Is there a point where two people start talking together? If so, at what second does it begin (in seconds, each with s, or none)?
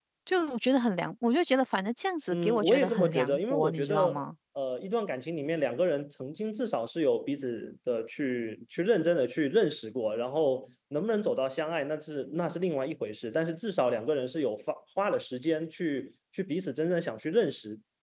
2.3 s